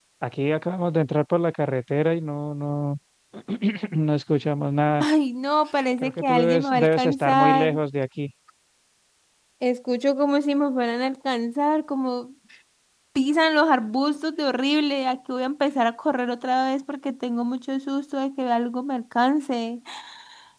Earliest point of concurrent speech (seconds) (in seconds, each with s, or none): 6.0 s